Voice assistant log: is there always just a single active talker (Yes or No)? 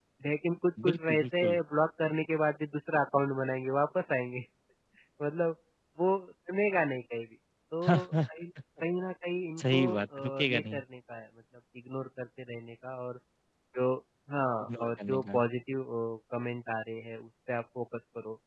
No